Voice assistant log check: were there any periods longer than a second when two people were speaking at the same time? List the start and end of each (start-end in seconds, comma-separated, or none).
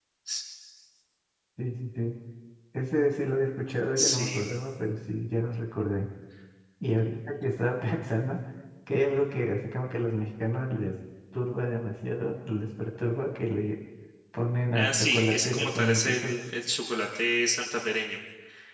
14.7-16.3